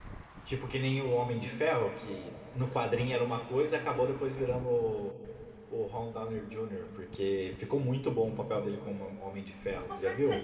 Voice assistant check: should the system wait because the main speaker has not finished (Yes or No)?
No